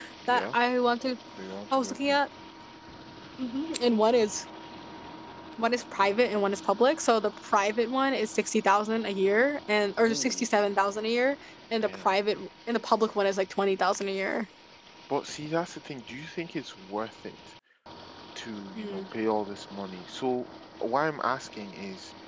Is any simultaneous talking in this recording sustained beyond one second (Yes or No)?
No